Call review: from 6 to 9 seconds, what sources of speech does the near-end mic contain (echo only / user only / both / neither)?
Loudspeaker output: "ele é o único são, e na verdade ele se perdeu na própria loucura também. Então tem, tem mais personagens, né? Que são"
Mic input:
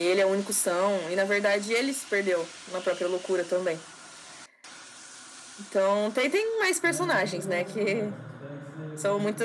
both